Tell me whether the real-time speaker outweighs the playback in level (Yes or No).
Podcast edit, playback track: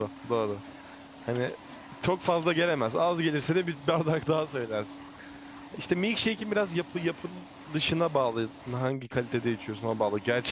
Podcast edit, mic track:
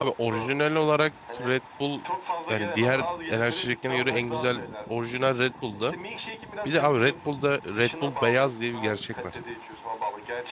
Yes